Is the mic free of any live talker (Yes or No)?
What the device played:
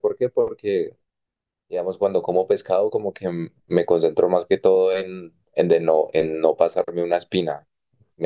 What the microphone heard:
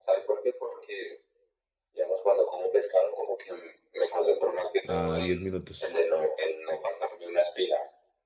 No